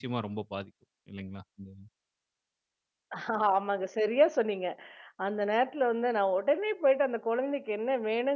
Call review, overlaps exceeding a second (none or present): none